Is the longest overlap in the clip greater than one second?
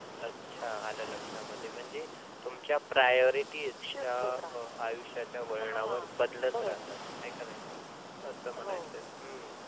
Yes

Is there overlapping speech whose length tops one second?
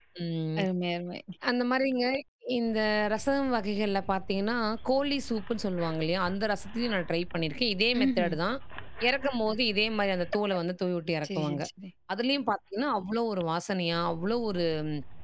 No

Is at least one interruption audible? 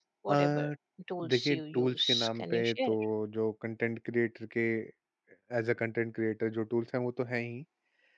Yes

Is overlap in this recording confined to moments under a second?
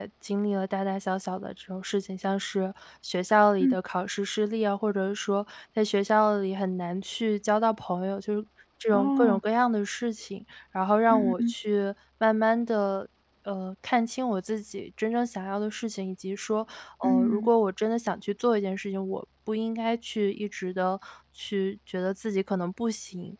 Yes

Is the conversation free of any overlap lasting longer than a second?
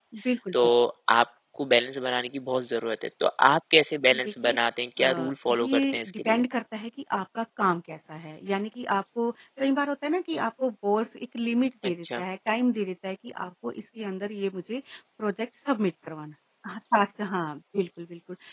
No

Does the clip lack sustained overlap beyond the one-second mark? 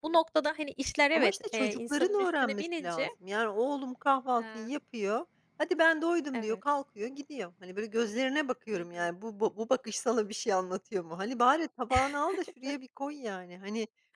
No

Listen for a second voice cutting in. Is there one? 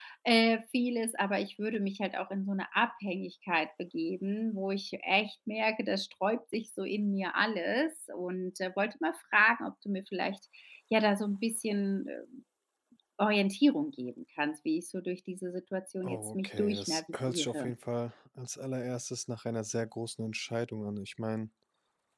Yes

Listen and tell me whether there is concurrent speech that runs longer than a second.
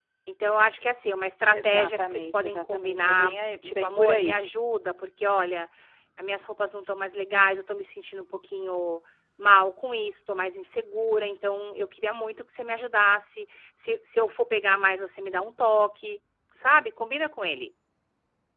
Yes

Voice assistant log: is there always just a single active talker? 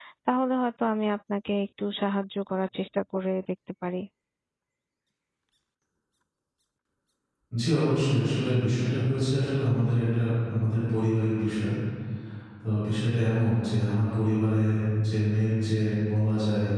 Yes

